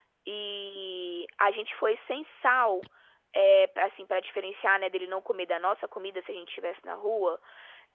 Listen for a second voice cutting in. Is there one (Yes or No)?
No